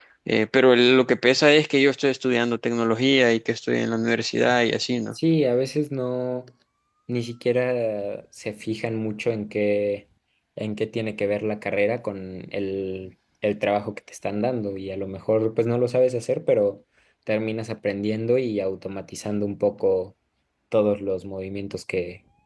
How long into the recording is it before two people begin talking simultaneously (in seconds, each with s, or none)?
none